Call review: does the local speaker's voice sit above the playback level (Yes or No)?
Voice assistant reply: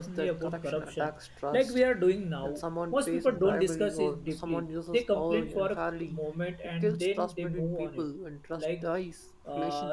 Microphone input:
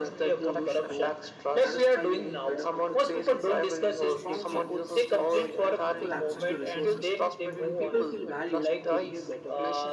No